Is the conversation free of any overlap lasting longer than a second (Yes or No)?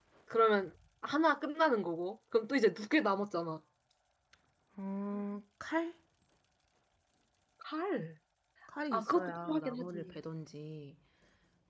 No